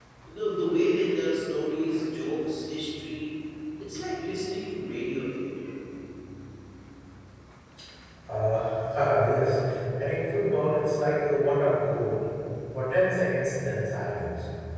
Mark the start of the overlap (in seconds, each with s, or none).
none